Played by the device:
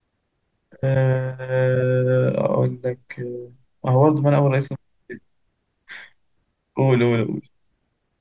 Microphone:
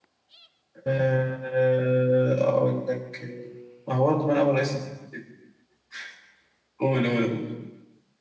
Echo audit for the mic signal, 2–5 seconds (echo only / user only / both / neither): echo only